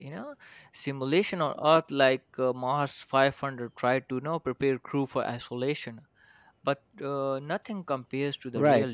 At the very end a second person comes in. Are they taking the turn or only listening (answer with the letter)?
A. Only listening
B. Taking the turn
B